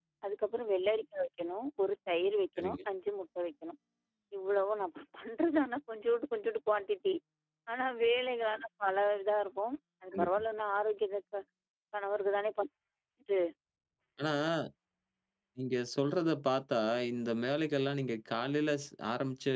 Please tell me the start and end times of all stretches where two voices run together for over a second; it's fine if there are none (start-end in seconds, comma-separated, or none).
none